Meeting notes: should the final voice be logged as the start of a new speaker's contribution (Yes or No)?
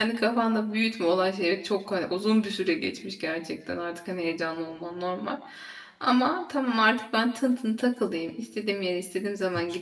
No